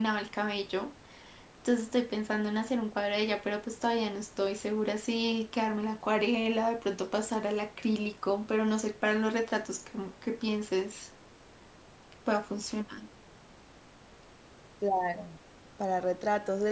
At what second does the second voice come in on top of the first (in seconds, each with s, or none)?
none